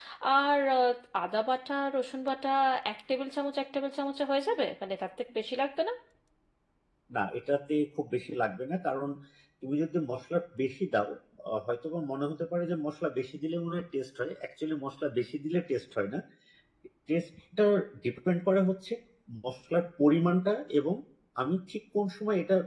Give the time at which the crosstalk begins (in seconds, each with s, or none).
none